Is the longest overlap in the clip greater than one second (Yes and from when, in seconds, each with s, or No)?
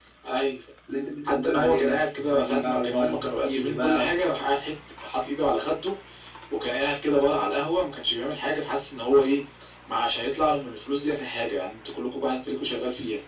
Yes, from 1.2 s